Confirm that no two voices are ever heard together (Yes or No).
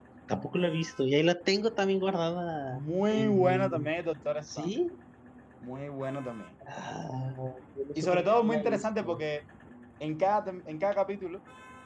No